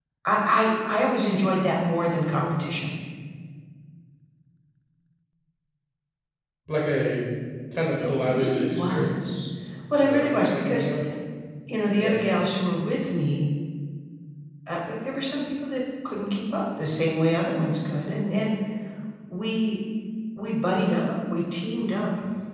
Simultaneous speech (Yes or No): Yes